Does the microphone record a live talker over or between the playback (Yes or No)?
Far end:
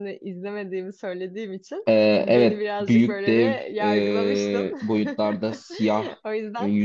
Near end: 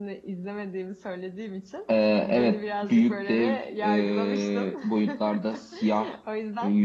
No